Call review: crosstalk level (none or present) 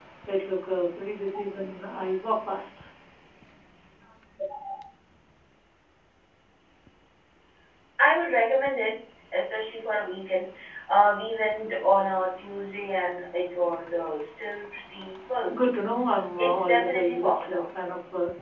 present